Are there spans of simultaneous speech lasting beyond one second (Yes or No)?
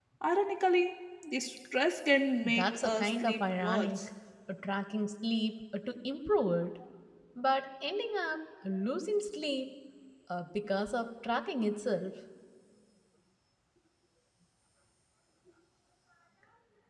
Yes